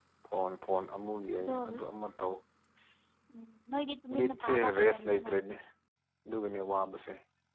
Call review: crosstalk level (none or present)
present